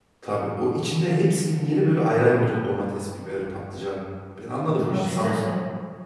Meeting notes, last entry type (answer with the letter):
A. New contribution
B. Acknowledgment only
A